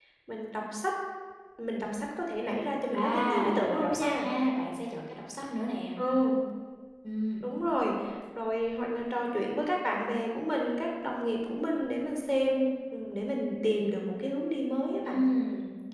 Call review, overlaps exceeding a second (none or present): present